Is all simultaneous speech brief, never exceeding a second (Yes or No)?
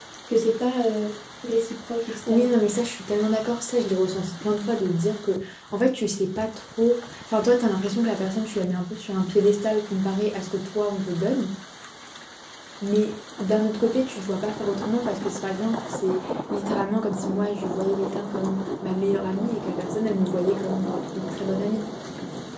Yes